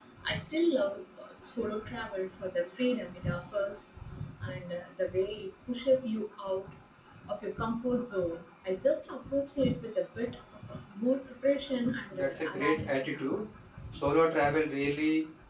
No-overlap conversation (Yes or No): No